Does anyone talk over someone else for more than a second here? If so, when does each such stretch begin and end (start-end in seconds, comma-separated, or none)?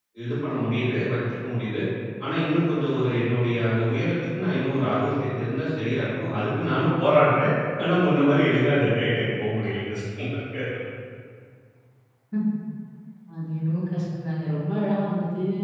none